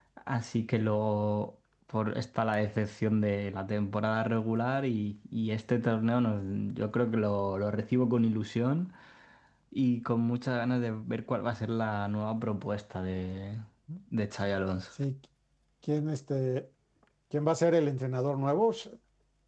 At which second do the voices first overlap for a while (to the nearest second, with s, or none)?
none